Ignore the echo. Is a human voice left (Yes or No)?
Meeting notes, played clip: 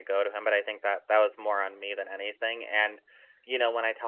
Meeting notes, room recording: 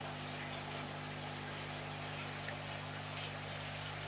No